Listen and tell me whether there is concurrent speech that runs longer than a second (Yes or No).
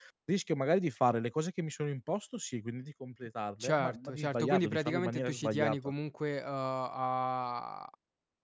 Yes